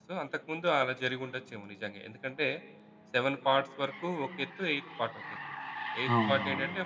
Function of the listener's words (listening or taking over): listening